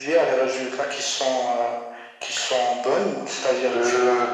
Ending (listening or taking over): listening